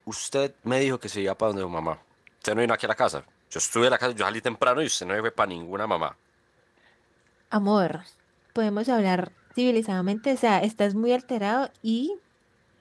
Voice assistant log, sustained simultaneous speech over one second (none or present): none